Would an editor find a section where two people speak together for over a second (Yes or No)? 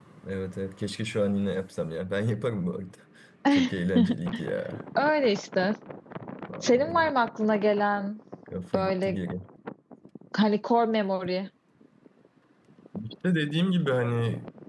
No